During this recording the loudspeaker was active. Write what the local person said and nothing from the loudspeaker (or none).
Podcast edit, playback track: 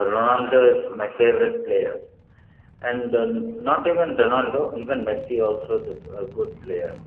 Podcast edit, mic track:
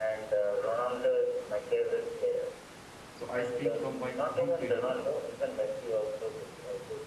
So I speak from my own feeling.